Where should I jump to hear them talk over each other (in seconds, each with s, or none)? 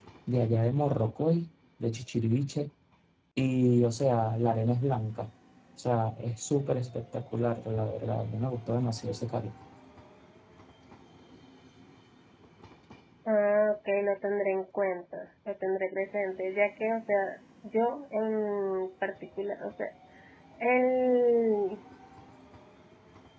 none